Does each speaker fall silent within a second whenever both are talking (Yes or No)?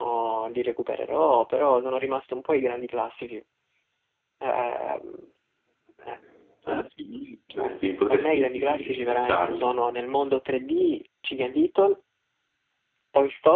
No